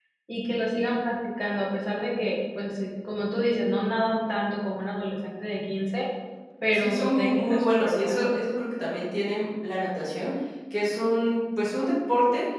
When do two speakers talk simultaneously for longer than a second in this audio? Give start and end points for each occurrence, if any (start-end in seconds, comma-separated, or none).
6.7-8.3